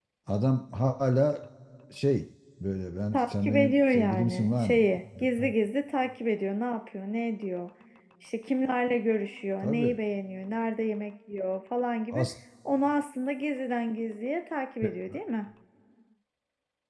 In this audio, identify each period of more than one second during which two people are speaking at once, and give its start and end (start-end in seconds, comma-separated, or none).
3.1-4.8